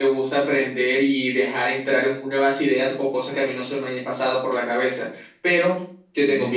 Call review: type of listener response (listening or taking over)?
listening